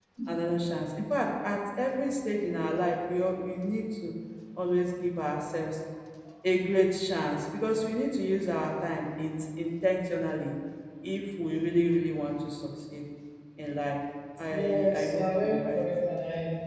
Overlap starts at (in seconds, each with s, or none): 14.5 s